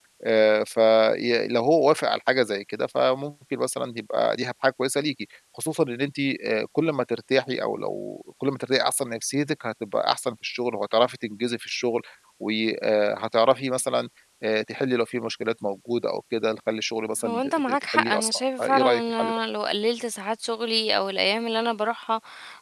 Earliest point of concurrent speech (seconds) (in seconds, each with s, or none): 17.2 s